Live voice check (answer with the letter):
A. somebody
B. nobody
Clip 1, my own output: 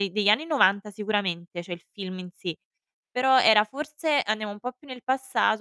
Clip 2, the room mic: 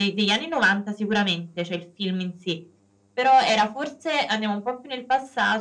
B